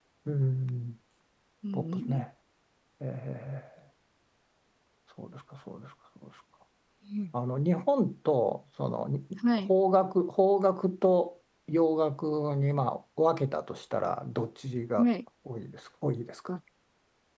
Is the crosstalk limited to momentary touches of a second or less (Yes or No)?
Yes